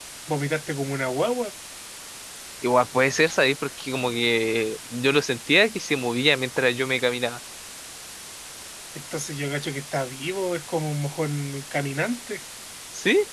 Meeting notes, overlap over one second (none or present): none